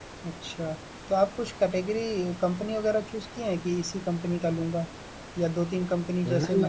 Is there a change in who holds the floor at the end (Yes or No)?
Yes